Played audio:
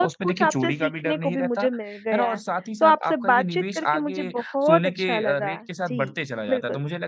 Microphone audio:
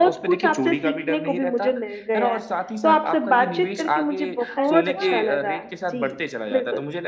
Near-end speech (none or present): present